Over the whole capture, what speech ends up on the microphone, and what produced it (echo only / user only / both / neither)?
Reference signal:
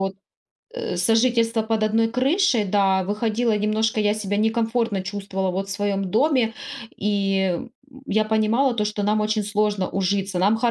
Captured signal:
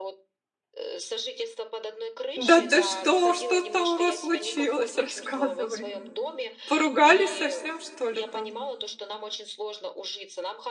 both